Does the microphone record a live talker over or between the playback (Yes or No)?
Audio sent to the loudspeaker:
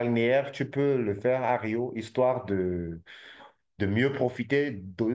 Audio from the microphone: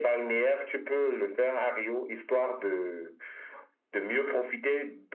No